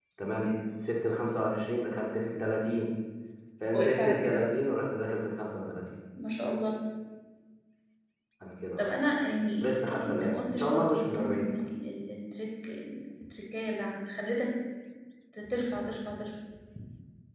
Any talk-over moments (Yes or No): Yes